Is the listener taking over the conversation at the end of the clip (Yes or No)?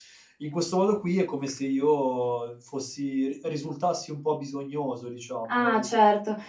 Yes